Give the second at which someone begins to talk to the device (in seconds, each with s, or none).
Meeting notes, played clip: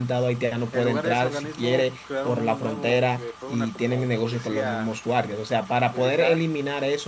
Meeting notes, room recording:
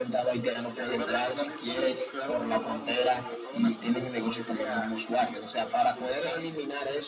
none